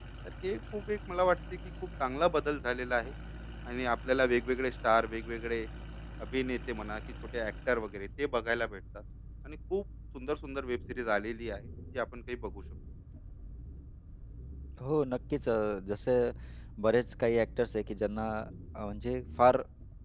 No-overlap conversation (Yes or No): Yes